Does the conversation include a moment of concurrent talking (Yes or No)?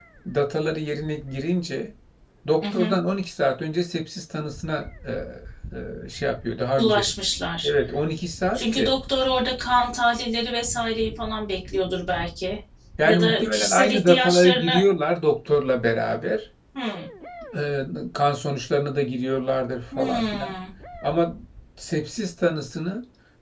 Yes